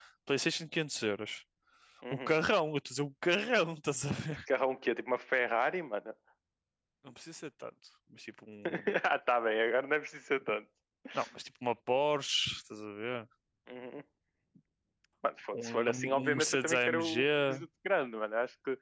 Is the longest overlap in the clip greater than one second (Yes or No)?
Yes